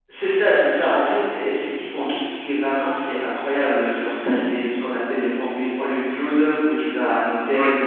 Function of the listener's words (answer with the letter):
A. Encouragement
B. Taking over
A